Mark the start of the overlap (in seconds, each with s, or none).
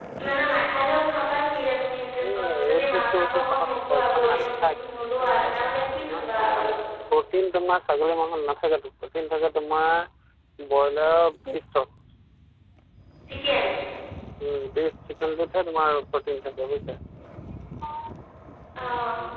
2.3 s